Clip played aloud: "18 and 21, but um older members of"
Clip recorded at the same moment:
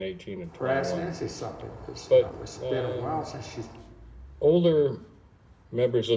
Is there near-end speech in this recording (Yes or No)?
Yes